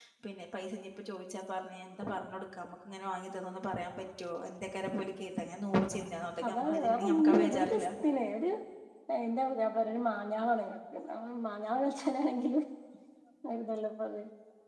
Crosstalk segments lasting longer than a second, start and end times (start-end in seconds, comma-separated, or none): 6.5-7.8